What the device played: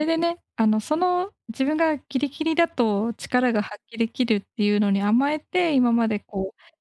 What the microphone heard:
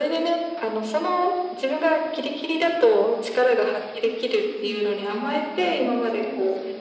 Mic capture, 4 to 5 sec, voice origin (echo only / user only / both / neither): both